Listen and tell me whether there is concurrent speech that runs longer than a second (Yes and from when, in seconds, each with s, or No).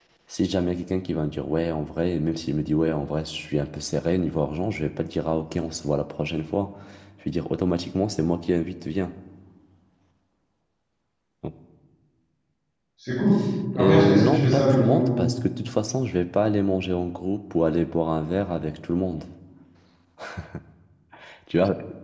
Yes, from 13.8 s